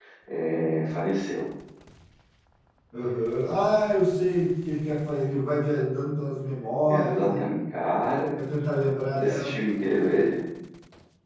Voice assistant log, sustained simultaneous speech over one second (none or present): none